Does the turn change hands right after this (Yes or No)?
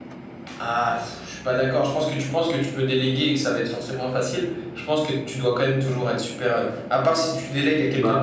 No